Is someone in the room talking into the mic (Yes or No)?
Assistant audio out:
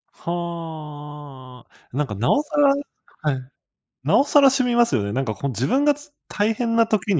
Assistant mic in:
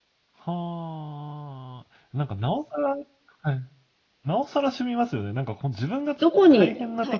Yes